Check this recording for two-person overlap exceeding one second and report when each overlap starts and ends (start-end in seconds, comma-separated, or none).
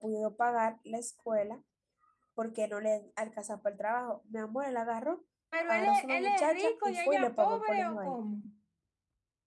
5.7-8.2